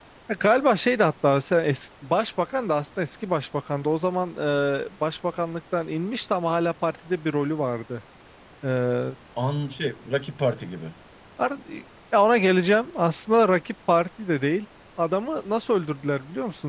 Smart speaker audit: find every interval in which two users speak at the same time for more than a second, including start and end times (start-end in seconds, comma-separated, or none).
none